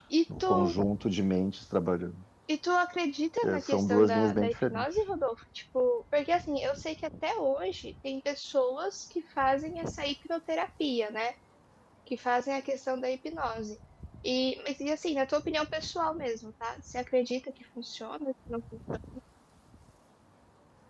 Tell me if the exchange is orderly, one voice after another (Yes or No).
No